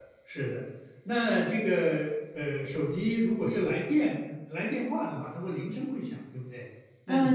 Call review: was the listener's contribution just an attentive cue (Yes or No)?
No